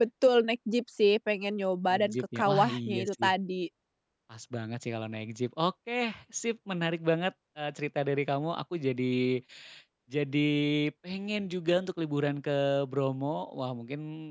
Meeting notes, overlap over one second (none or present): present